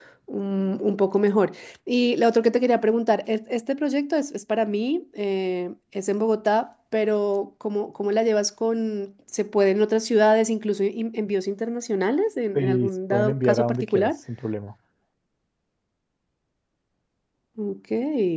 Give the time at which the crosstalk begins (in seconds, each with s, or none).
12.6 s